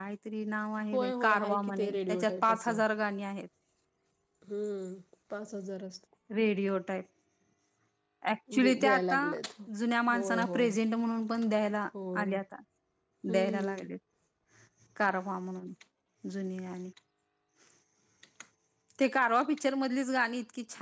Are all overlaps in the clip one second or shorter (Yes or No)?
No